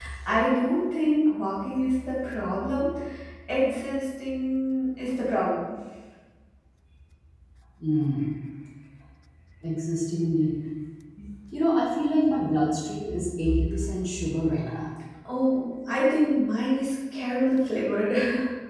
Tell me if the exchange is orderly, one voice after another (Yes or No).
Yes